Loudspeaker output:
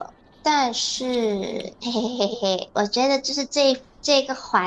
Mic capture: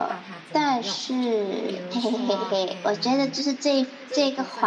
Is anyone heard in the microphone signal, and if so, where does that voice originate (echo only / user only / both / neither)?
both